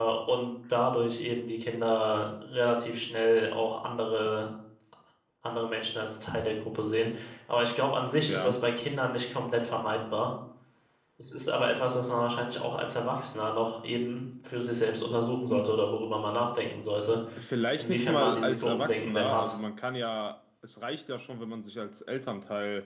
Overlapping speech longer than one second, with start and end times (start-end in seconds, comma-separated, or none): 17.8-19.6